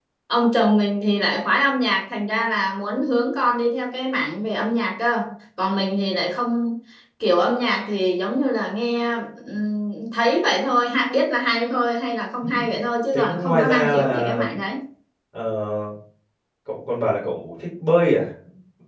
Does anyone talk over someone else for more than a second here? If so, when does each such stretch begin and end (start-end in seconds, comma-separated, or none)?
13.1-14.4